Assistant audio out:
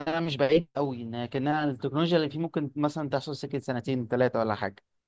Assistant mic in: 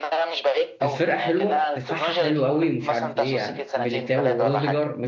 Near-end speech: present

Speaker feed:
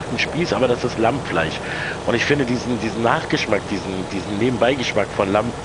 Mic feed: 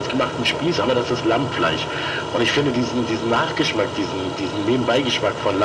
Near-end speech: none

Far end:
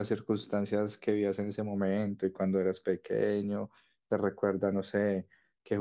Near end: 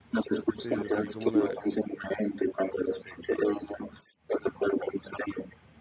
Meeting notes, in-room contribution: present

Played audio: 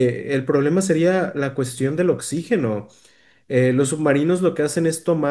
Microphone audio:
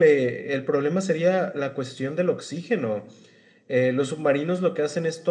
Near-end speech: none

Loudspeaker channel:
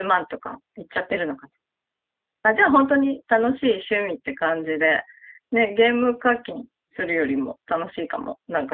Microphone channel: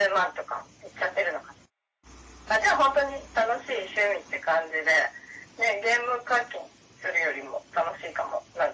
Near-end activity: none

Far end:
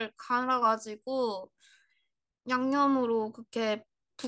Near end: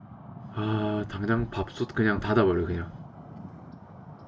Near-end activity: present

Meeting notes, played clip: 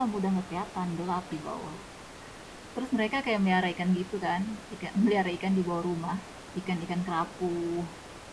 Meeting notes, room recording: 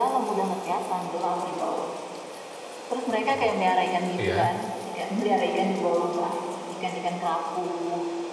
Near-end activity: present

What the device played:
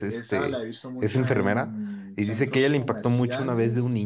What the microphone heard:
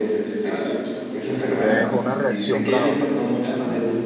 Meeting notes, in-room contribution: present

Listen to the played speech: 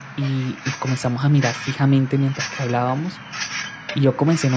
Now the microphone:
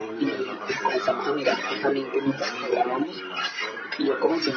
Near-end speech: present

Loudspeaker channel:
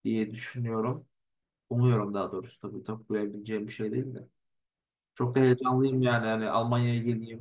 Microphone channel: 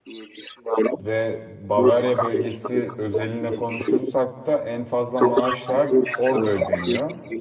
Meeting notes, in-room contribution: present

